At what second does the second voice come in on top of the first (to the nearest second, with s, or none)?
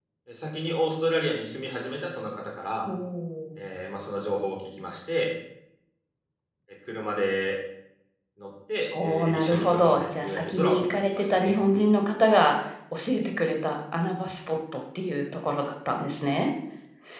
9 s